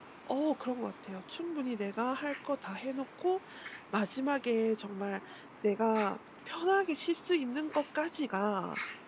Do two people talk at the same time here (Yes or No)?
No